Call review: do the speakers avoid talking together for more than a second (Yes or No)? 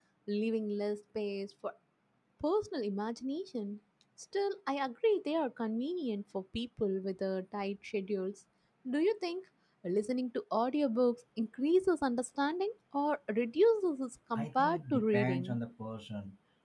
No